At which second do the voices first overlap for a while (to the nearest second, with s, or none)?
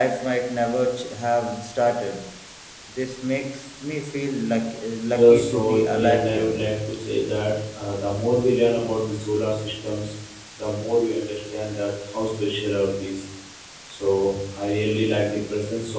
5 s